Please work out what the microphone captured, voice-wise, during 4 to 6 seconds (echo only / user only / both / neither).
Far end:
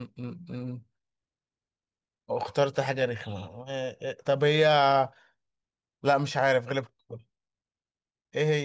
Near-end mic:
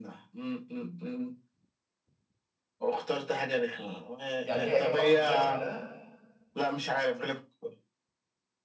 both